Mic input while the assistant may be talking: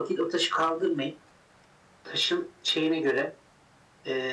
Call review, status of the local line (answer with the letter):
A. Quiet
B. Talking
A